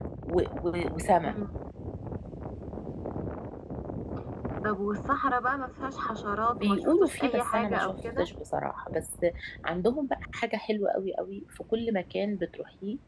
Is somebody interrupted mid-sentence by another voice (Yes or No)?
Yes